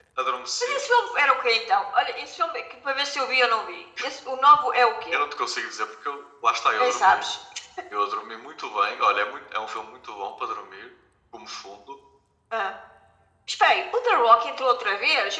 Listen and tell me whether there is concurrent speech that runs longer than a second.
No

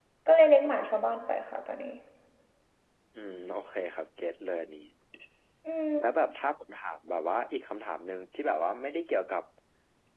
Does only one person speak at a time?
Yes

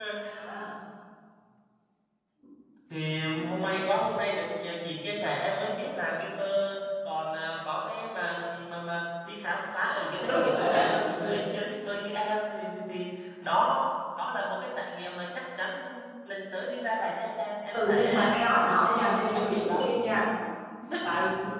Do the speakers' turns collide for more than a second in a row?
Yes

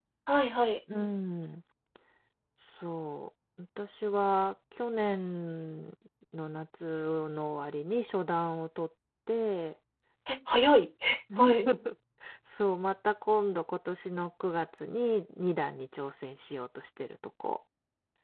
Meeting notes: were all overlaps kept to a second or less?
Yes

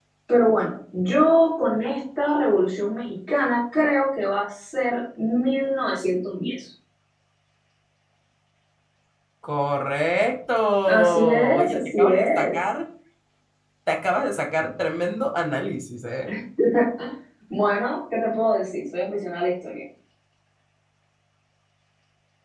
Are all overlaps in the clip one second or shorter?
No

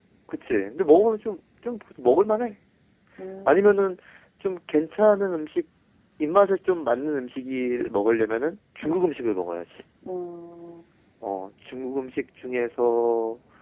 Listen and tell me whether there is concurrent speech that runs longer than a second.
No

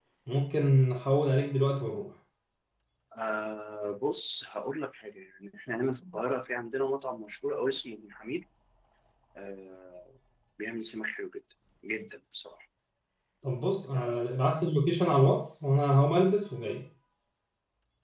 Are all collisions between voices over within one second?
Yes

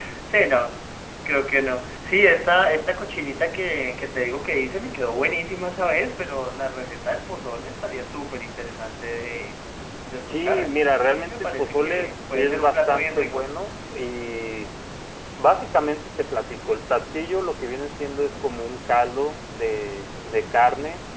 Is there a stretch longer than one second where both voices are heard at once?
Yes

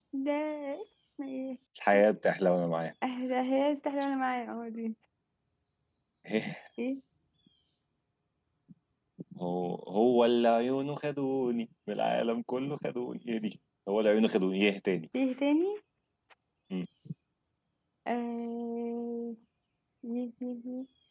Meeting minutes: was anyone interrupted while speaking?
No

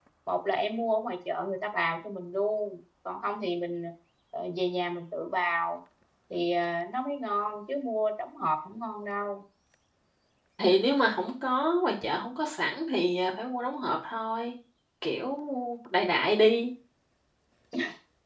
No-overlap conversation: Yes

